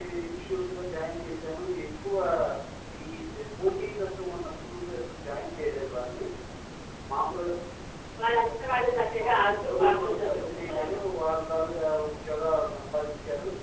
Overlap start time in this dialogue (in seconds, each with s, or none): 9.2 s